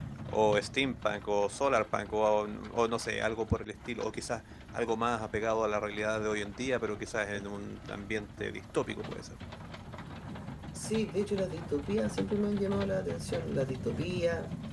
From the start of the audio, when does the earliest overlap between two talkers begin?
none

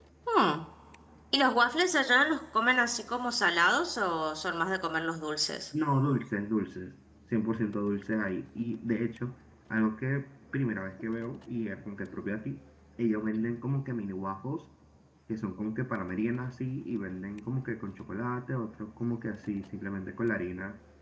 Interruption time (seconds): none

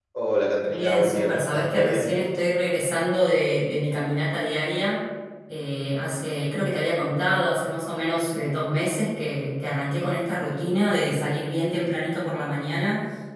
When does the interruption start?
0.7 s

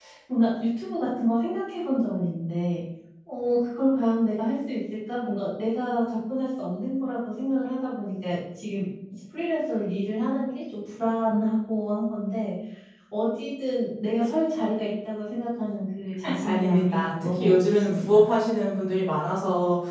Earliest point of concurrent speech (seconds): 16.2 s

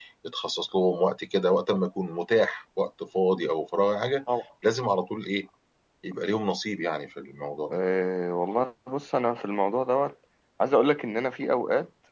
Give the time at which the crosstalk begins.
none

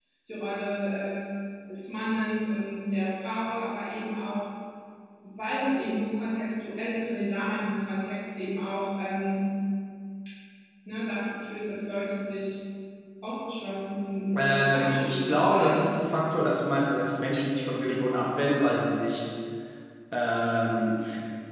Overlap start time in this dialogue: 14.3 s

